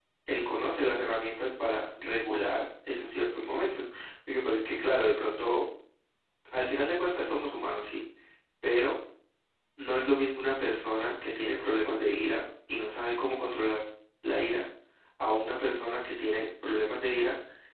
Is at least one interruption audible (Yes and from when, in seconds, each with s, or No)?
No